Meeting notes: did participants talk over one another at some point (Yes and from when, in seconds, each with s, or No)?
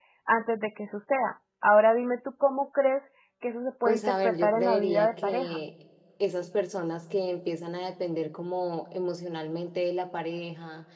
Yes, from 3.8 s